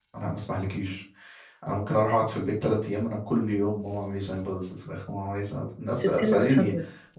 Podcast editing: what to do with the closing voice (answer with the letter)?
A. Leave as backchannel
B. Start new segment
A